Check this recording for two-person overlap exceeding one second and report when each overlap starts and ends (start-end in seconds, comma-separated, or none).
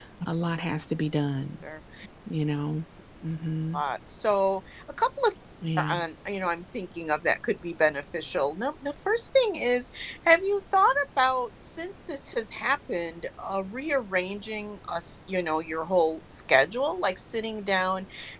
none